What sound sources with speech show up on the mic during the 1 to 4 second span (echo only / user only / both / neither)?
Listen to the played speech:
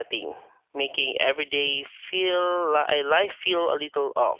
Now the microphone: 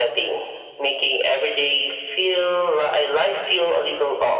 echo only